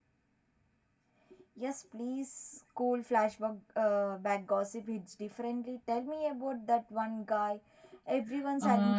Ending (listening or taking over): taking over